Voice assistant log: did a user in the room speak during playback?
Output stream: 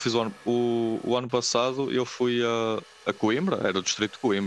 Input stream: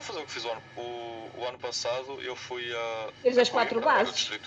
Yes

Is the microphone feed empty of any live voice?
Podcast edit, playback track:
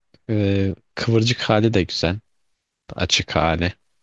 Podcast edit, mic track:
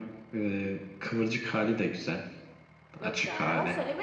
No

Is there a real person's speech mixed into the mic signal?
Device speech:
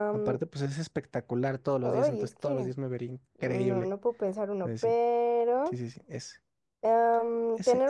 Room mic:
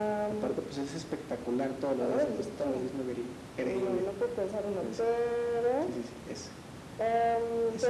No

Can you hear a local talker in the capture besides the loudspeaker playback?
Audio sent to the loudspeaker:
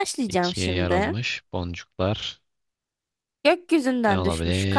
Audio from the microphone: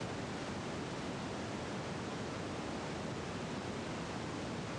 No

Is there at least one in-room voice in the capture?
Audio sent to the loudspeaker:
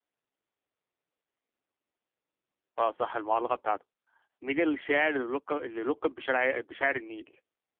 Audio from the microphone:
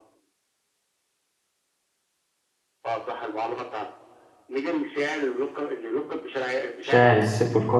Yes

